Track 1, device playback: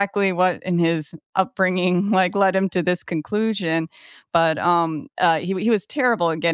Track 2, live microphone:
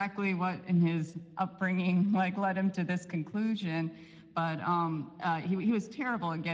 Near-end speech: none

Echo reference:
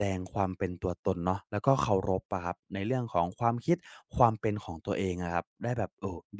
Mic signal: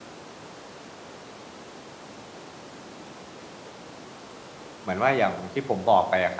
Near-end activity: present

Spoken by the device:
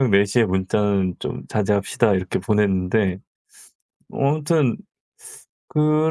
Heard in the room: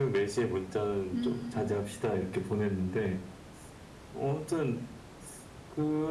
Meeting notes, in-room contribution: present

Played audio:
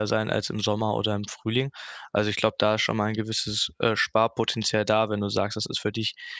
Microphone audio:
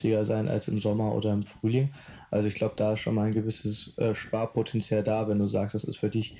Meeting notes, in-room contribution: none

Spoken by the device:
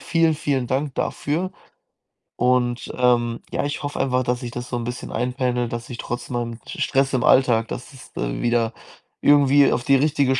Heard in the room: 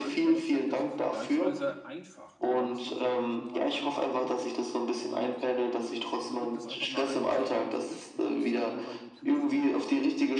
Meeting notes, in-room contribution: present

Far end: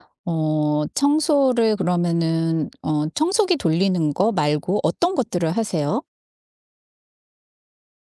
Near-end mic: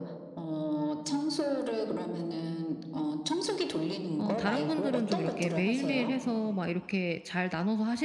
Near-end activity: present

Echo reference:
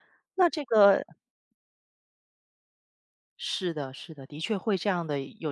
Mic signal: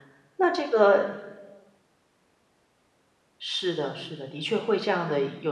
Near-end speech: none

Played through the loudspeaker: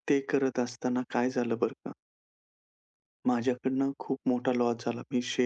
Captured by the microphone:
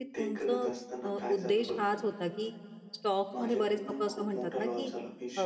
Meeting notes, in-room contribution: present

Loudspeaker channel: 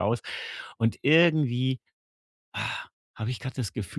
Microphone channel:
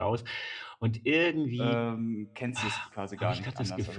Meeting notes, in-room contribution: present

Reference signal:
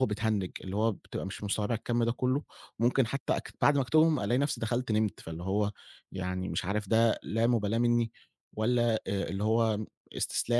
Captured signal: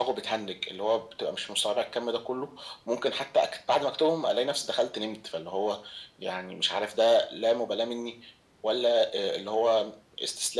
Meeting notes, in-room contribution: none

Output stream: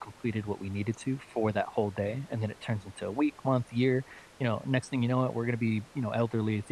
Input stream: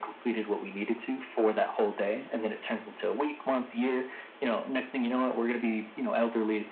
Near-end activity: none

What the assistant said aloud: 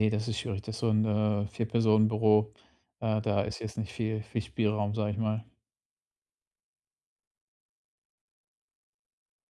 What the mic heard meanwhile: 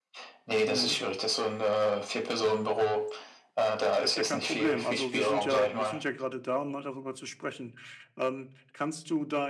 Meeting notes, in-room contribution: present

